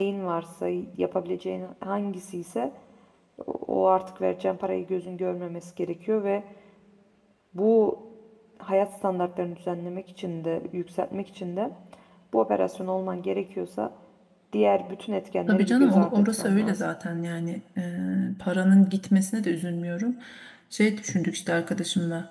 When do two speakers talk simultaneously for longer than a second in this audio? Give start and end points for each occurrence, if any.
15.5-16.8

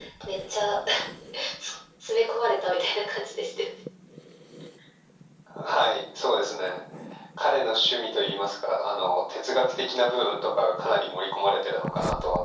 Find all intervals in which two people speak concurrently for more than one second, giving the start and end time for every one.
none

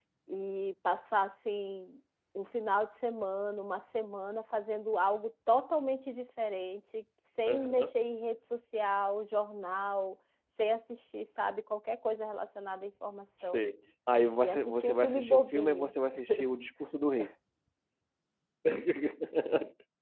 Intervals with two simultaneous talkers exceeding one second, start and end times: 14.4-15.9

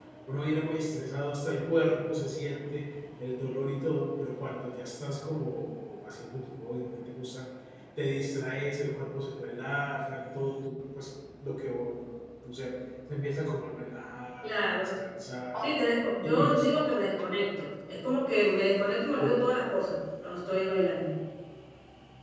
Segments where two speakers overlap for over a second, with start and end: none

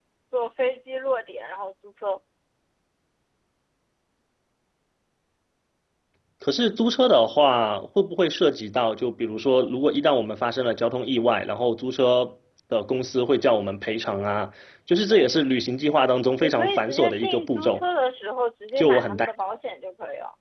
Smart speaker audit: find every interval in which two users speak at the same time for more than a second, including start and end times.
16.4-17.8

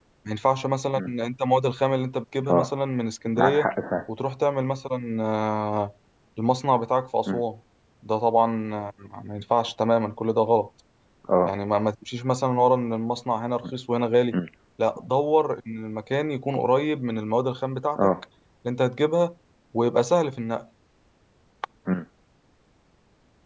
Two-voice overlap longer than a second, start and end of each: none

